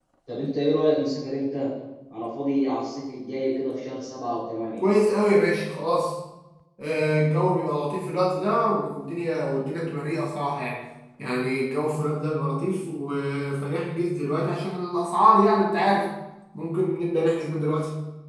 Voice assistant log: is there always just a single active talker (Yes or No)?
Yes